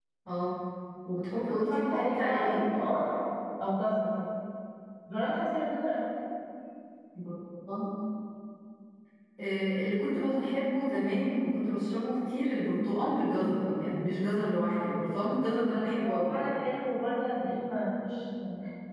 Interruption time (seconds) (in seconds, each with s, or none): 1.3 s